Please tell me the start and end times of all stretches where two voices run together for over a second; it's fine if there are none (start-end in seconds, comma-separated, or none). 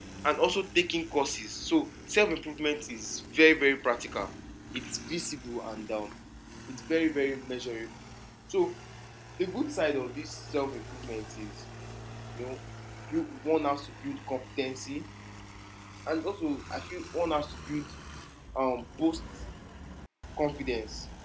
none